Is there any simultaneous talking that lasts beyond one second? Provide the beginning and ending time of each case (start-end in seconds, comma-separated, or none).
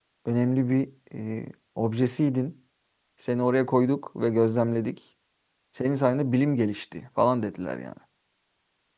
none